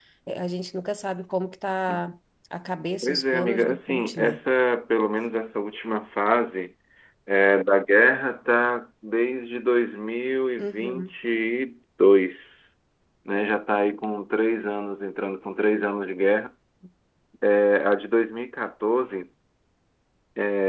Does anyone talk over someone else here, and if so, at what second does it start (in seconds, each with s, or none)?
3.0 s